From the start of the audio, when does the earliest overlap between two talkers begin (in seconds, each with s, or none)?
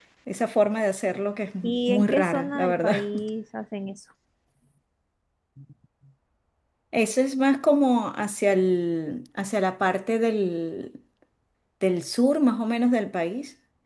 1.6 s